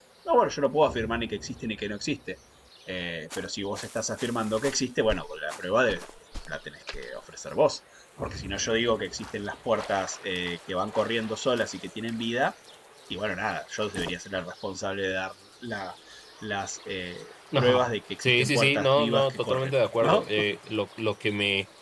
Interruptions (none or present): present